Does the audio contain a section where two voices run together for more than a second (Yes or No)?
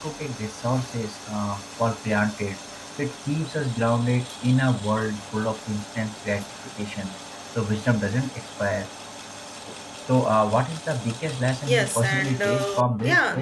Yes